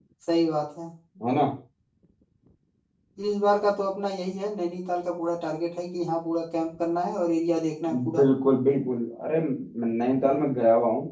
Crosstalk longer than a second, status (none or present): none